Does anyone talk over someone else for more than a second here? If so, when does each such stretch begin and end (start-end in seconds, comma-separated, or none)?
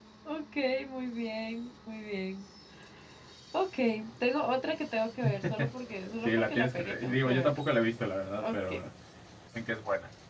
6.2-7.6